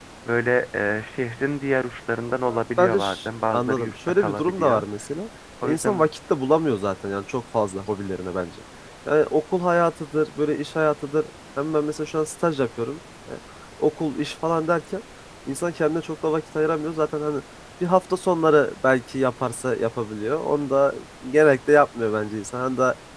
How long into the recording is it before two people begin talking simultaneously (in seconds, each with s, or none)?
2.5 s